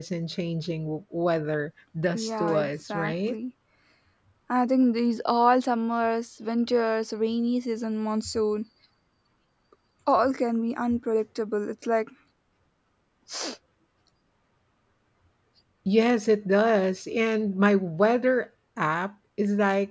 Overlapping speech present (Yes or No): Yes